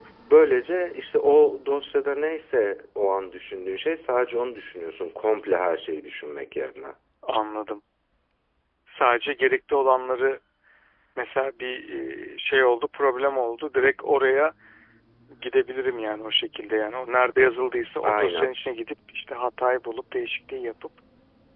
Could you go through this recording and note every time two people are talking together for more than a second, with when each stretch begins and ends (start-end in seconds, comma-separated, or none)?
none